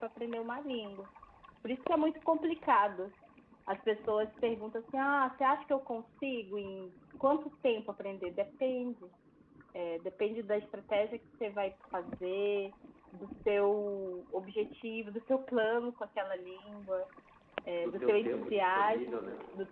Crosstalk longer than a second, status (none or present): present